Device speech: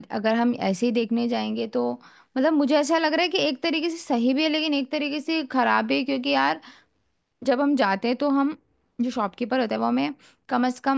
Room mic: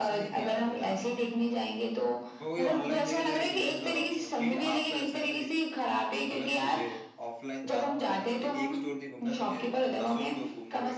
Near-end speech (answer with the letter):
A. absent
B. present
B